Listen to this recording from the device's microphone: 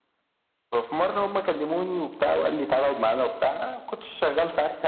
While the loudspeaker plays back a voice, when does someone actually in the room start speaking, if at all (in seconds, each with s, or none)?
none